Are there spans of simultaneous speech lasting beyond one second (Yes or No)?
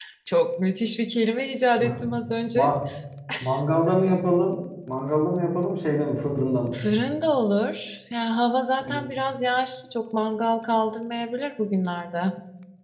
No